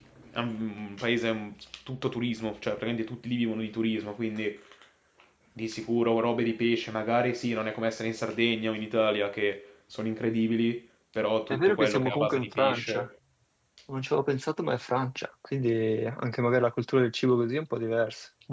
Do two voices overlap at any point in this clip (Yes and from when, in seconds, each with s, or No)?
Yes, from 11.5 s